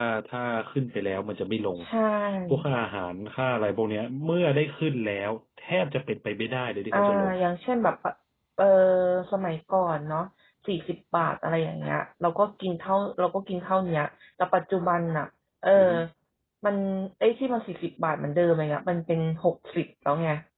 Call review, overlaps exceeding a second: none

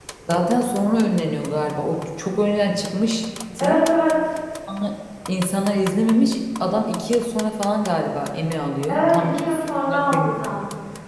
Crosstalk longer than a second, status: present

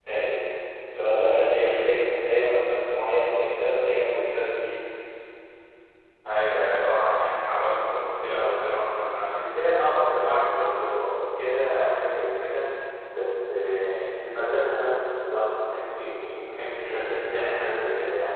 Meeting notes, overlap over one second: none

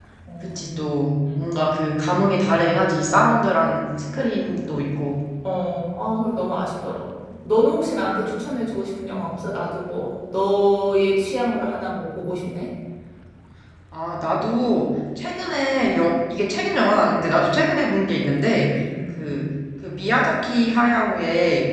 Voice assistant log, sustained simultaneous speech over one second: none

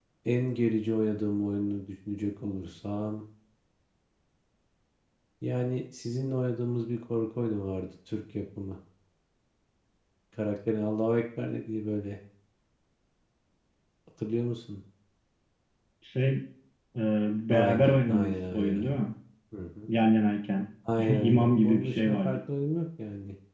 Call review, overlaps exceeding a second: present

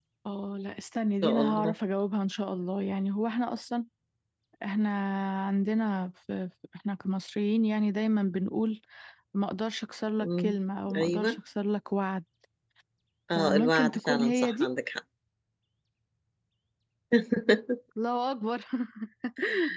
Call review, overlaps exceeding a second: present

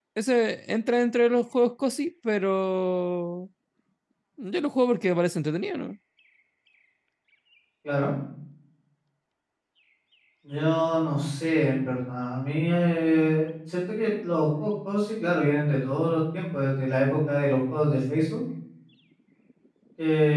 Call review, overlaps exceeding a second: none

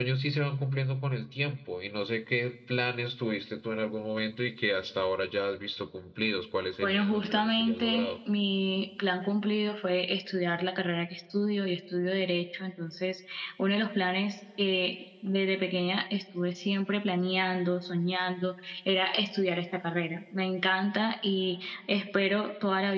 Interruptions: present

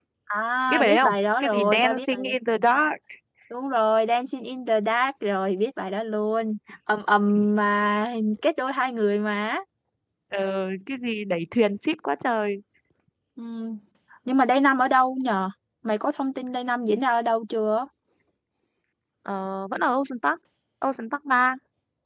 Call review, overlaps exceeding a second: present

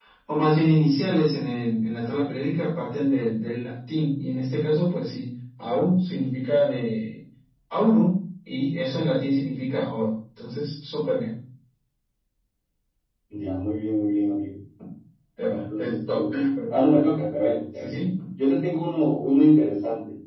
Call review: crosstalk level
present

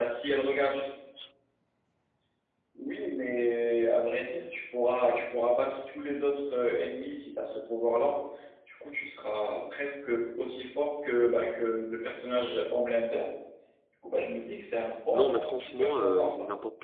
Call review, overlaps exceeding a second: present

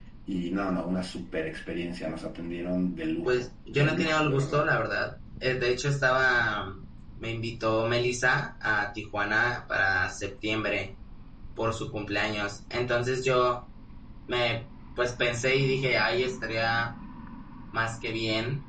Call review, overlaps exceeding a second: present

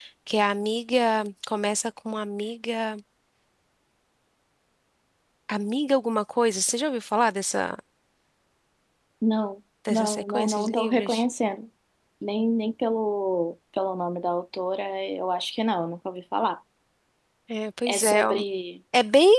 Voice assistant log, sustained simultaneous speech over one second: present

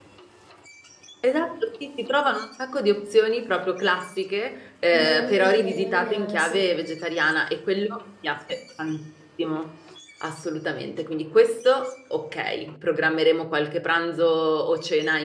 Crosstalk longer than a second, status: present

